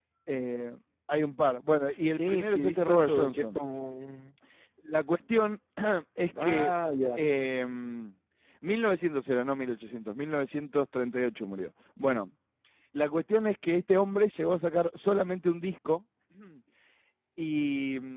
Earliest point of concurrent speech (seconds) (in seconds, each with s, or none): 2.1 s